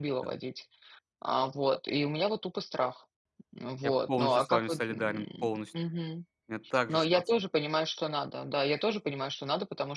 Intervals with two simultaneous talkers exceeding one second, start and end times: 3.9-5.7

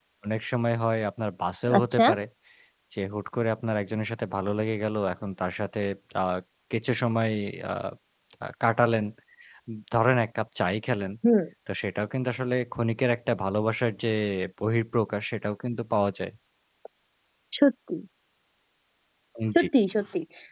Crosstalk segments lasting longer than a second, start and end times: none

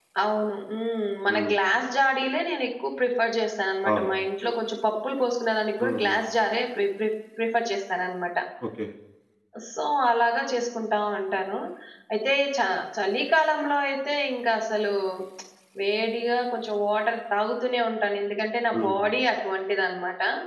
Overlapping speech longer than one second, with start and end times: none

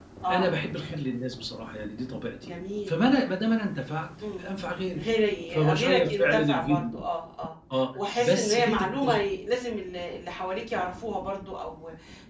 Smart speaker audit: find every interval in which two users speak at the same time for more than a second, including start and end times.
5.5-7.0, 7.9-9.2

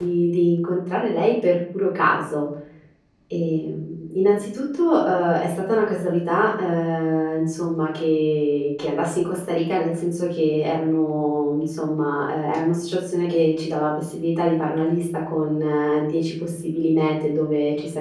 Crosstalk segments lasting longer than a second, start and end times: none

